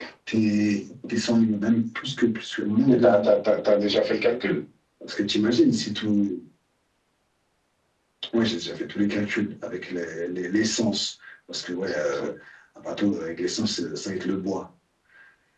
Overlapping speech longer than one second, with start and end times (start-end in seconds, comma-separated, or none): none